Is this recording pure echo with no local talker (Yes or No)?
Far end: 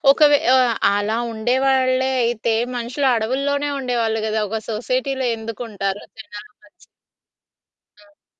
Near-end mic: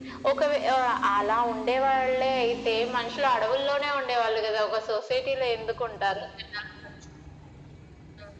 Yes